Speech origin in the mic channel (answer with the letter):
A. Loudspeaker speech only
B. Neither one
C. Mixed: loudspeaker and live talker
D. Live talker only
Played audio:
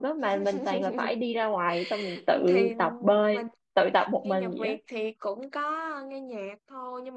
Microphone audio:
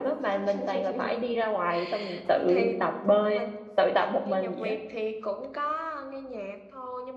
A